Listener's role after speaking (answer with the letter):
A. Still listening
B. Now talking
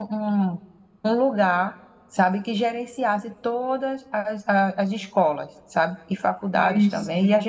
A